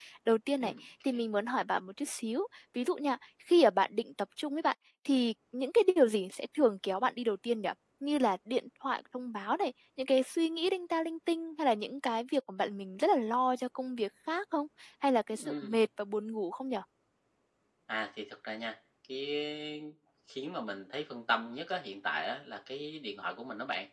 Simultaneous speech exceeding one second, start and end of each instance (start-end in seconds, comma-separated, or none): none